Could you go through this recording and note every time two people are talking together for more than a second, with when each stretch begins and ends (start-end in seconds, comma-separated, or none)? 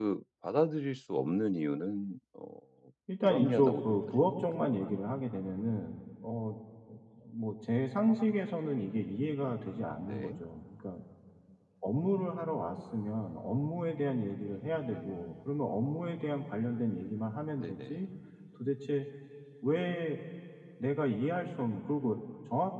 3.2-4.4